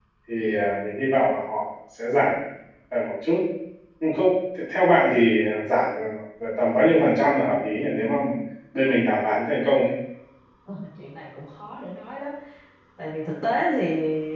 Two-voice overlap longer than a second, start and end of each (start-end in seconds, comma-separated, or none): none